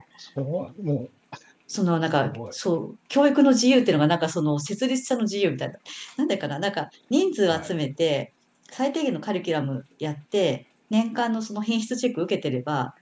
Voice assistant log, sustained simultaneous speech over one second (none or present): none